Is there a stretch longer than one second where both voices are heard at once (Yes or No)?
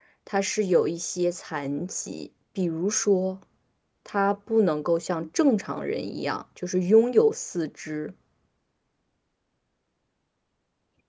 No